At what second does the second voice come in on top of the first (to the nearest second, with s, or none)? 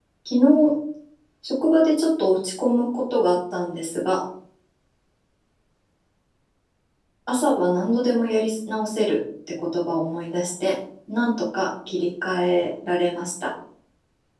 none